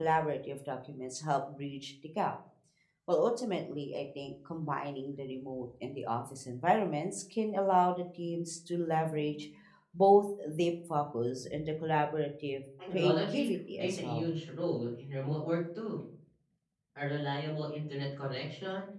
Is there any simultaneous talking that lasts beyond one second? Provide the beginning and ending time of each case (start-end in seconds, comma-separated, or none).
12.9-14.3